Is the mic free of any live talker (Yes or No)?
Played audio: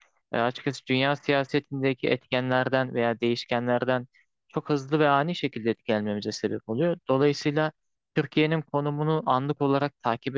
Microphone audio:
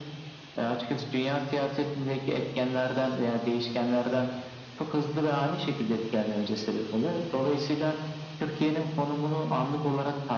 Yes